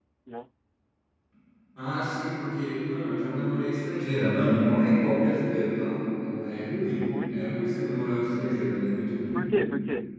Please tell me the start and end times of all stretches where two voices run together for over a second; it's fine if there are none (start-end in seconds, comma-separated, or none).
none